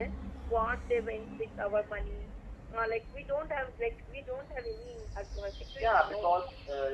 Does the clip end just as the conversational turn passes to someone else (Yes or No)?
Yes